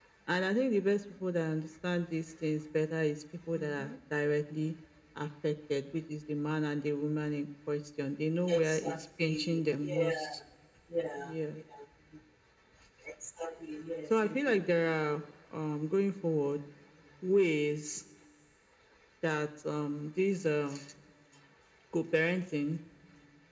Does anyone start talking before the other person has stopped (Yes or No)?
Yes